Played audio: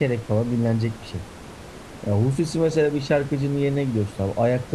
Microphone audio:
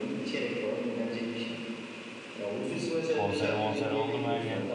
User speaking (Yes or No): Yes